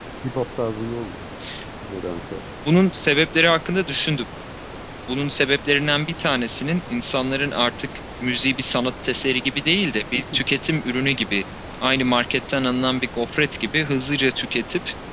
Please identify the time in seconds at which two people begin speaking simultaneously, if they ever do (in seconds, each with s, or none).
none